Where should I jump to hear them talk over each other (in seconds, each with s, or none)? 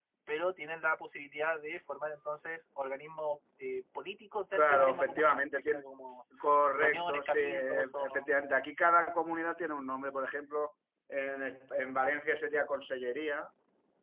4.5 s